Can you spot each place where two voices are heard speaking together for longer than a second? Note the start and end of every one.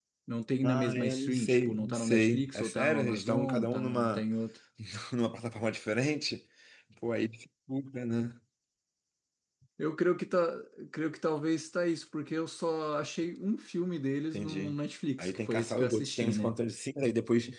0.6-4.2, 15.2-16.5

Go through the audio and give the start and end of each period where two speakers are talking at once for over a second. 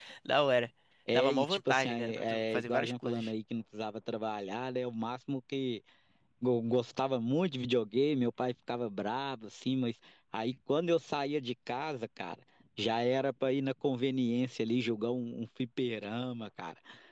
1.1-3.3

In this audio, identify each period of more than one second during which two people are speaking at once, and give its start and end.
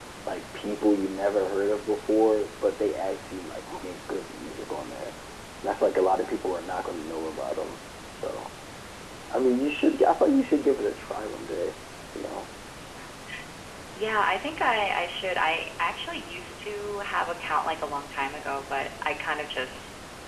none

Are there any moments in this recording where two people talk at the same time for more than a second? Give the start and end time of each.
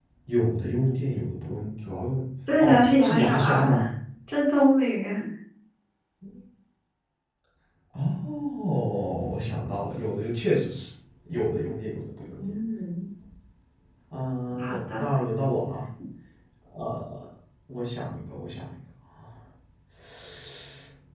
2.6-3.8

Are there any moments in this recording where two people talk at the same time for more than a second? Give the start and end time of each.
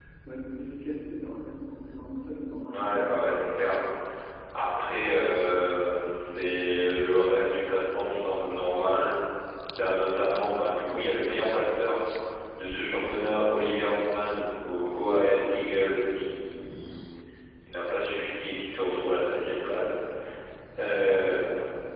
none

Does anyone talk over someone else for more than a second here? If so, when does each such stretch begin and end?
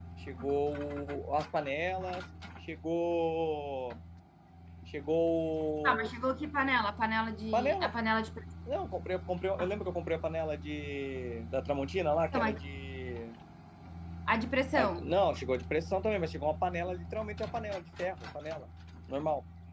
none

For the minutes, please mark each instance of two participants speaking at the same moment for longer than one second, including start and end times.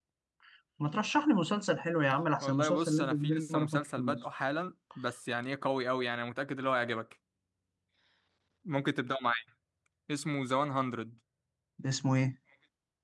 2.4-4.2

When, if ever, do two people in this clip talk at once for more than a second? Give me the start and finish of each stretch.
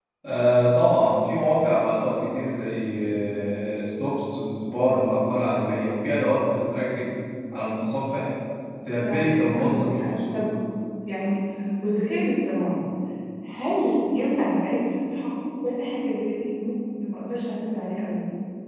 9.0-10.5

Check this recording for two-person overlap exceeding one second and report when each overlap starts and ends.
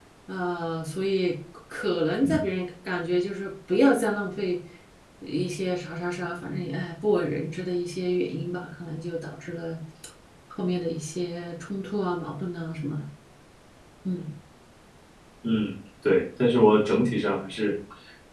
none

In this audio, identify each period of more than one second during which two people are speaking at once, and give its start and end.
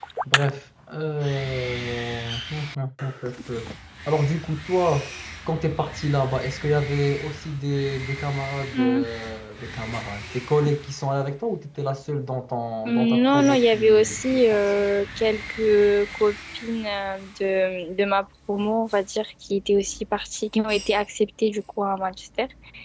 12.9-14.6

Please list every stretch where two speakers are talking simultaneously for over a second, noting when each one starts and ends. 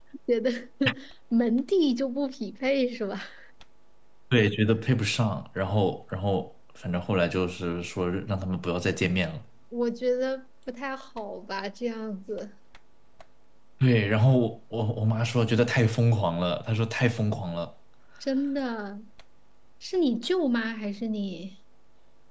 none

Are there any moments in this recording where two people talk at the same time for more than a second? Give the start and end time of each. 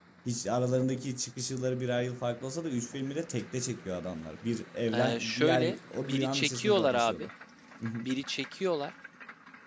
4.9-7.3

